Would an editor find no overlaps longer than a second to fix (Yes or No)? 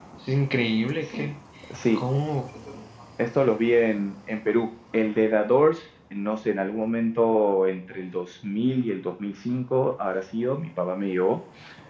Yes